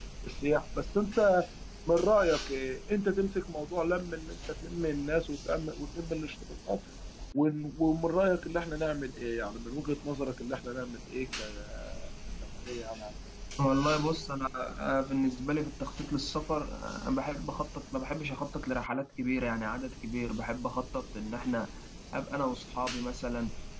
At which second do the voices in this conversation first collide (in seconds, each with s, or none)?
none